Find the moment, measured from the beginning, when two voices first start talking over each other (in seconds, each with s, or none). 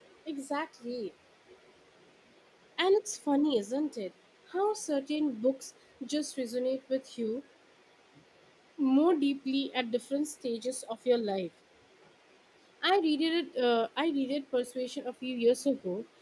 none